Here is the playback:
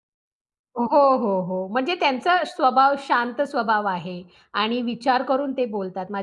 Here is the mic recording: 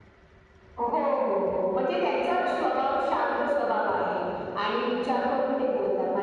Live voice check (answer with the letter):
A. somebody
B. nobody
A